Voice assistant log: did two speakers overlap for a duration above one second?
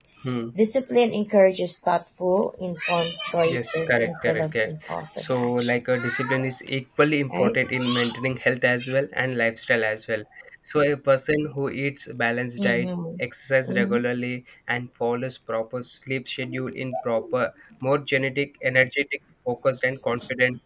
Yes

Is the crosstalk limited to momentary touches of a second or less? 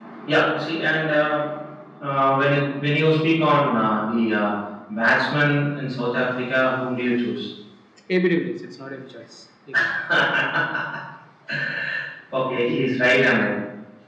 Yes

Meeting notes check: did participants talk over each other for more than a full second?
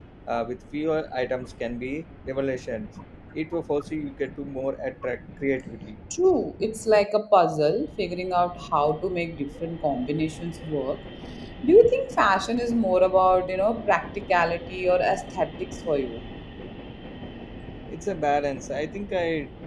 No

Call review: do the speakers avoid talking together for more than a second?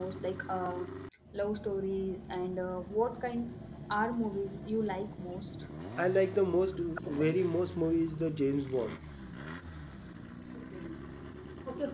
Yes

